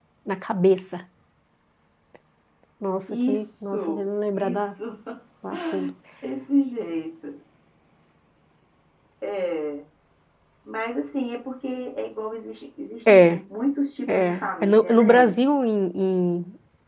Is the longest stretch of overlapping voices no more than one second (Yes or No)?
No